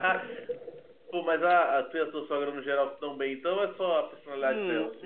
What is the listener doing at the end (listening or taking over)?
taking over